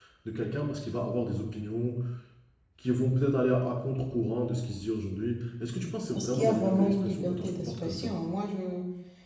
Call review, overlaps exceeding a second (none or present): present